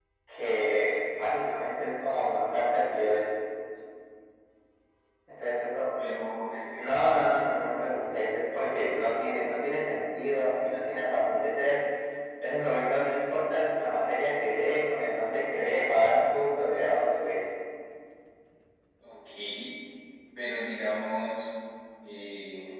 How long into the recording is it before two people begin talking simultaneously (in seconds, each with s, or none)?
none